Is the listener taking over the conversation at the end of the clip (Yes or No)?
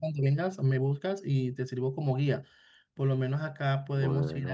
No